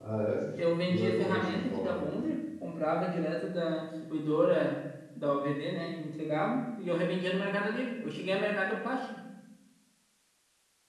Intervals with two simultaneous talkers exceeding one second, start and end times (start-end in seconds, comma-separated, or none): 0.9-2.3